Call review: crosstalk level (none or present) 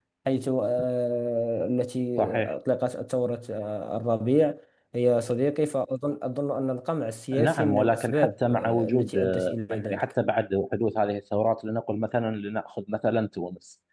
present